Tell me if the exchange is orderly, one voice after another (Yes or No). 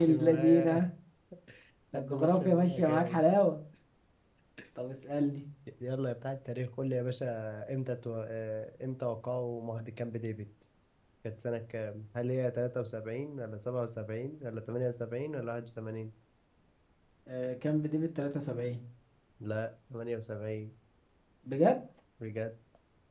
No